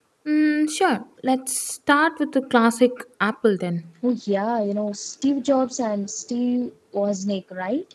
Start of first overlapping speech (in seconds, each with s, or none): none